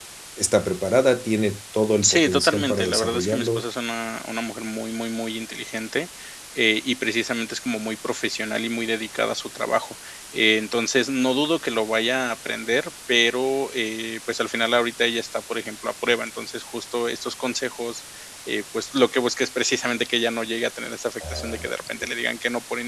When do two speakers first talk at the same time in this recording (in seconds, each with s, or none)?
2.0 s